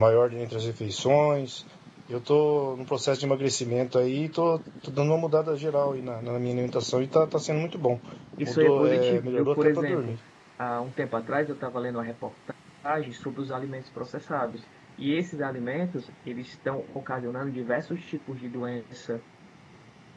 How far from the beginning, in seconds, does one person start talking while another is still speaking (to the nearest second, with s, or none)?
8 s